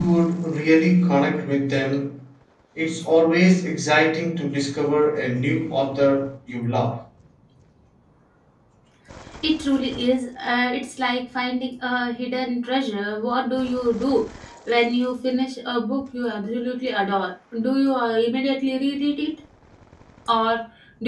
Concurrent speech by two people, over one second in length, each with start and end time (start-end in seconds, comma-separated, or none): none